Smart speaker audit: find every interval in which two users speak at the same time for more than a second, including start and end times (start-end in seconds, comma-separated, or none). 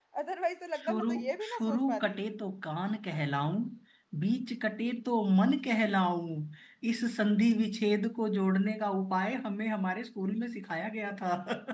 0.7-2.2